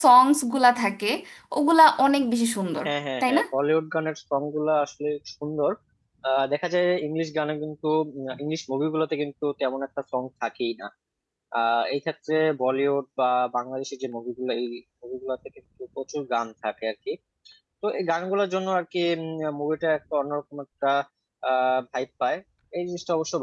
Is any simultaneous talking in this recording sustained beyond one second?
No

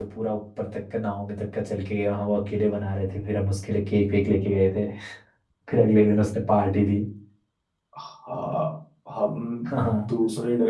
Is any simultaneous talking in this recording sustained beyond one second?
No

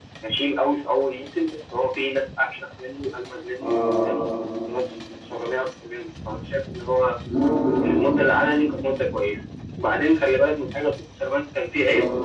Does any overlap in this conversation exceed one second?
No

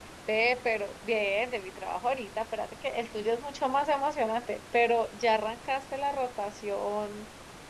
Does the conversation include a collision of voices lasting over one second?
No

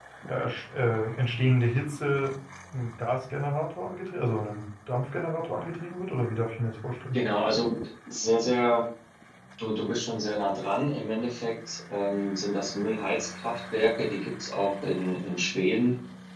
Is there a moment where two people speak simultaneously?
No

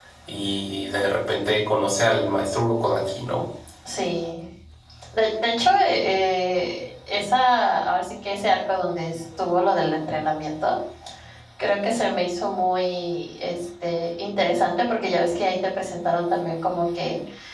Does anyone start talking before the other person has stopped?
No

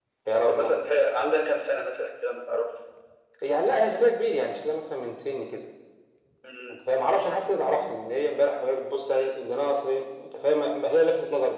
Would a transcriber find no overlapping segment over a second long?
Yes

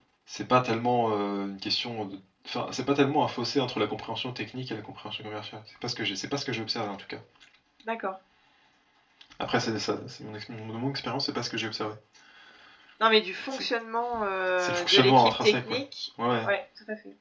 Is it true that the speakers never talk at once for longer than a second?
No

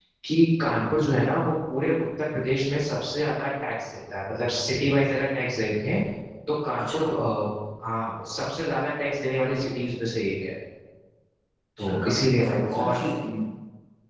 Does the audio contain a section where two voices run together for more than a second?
Yes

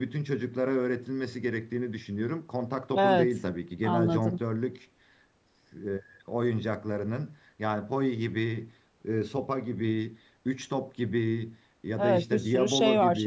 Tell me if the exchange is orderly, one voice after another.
No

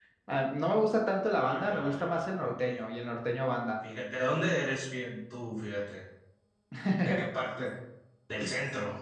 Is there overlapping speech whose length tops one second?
Yes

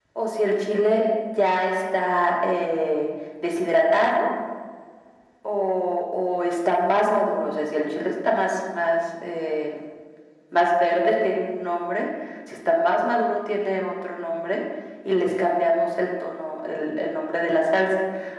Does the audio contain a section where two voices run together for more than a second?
No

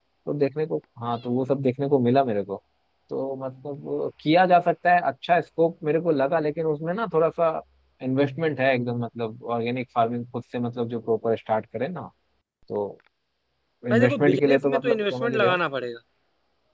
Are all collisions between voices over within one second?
No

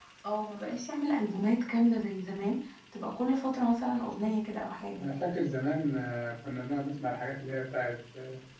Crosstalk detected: No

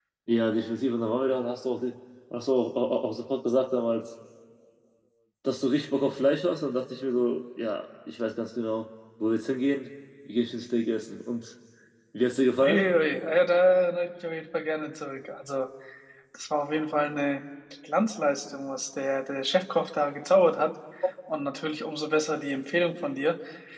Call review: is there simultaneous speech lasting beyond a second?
No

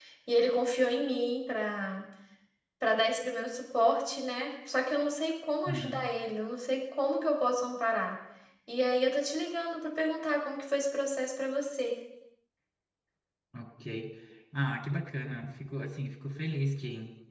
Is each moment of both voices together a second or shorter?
Yes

